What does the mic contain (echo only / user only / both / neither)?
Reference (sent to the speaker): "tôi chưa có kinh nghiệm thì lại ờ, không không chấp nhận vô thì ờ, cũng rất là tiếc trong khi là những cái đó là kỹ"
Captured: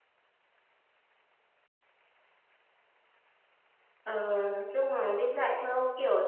user only